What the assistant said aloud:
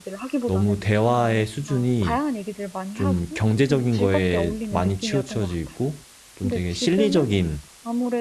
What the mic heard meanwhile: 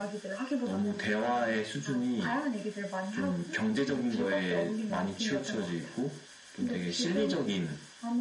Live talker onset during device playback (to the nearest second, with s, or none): none